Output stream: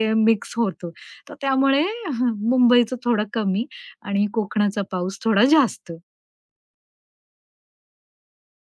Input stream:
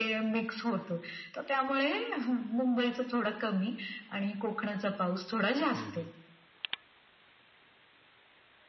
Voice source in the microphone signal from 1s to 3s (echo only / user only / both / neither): echo only